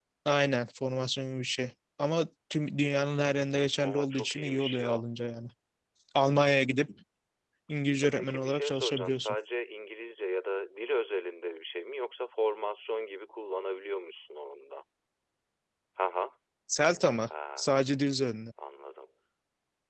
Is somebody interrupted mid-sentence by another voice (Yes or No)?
Yes